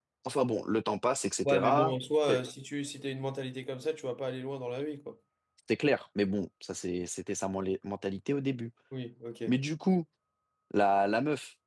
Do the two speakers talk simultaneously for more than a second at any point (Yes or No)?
No